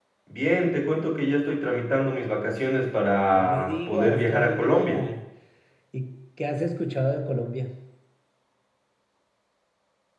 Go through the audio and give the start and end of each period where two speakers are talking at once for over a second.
3.2-5.0

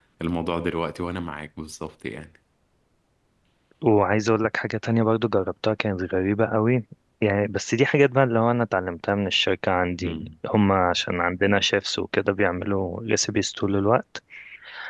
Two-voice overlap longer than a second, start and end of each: none

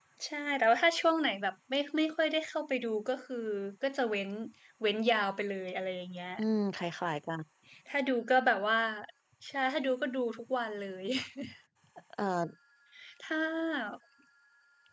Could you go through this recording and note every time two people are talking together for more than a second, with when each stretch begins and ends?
none

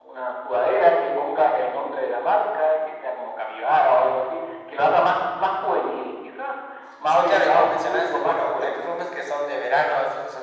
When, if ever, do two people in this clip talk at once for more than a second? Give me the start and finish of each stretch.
7.1-8.9

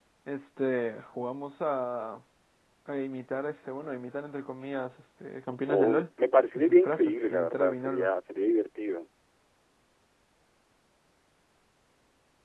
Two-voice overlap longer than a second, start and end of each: 6.5-8.1

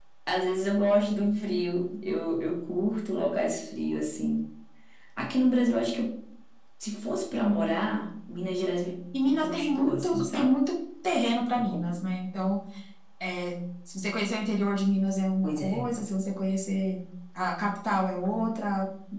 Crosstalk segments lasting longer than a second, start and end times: 9.2-10.5

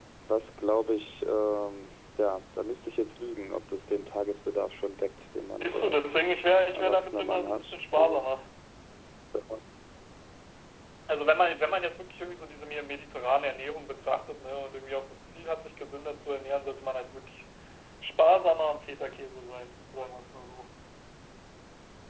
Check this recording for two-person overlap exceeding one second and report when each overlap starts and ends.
6.7-8.2

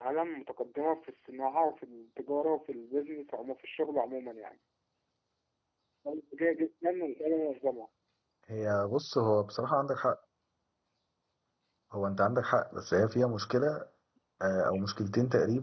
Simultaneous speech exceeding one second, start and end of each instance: none

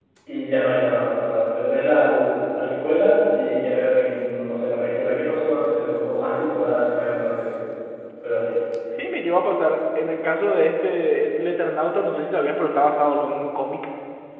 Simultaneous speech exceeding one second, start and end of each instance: none

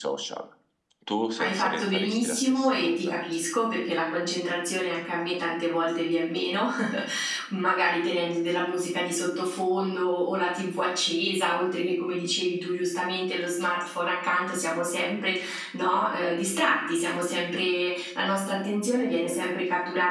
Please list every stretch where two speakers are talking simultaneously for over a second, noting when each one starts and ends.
1.4-3.2

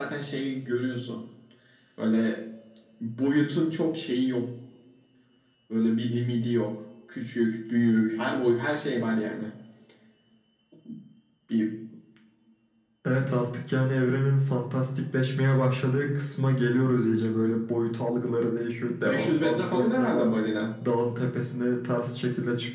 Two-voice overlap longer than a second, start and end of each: 19.0-20.3

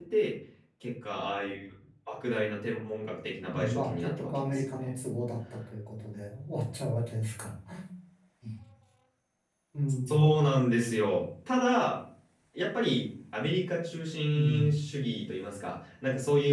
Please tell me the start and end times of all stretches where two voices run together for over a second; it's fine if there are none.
3.4-4.9

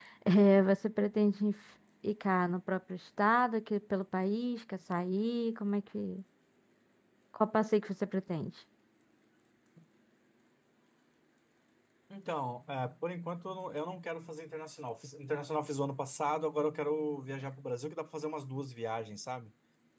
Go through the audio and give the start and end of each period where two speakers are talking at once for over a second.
none

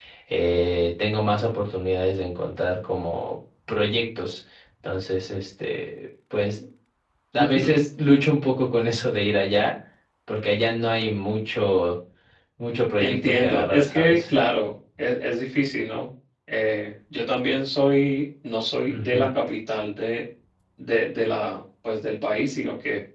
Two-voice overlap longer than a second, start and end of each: 13.0-14.3

